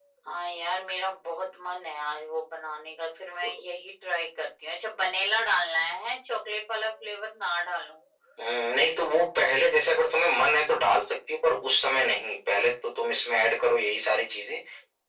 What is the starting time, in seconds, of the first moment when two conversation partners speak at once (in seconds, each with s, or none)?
none